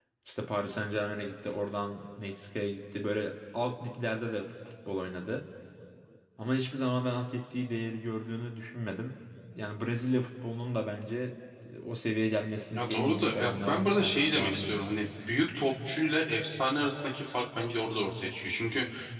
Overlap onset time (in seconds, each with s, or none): 12.7 s